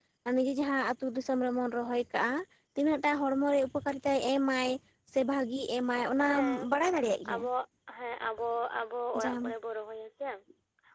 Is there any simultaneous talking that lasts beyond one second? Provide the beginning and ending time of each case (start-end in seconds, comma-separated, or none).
none